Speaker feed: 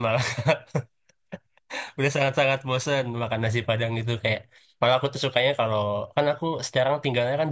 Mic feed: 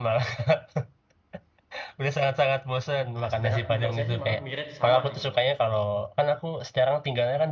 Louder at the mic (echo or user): echo